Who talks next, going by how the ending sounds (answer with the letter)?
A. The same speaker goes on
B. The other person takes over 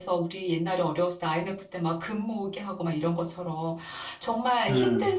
A